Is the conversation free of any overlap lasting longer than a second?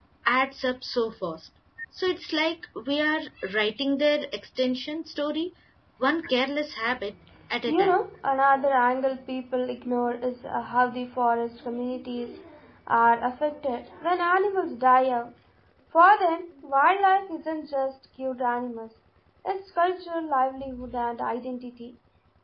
Yes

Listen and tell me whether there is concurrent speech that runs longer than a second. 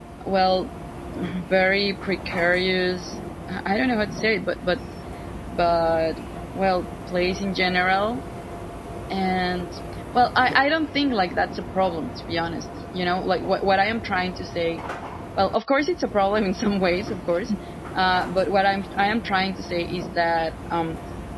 No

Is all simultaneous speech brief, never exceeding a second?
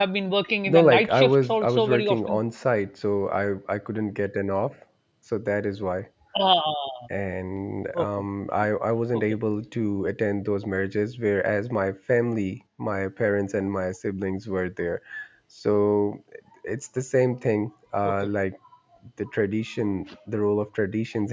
No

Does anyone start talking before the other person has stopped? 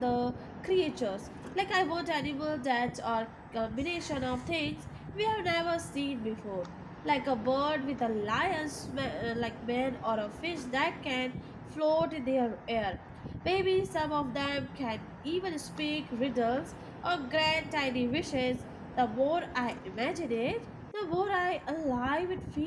No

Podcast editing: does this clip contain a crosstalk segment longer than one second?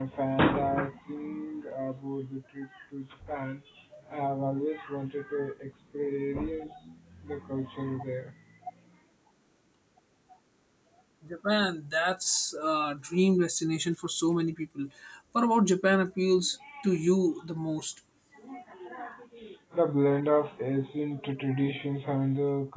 No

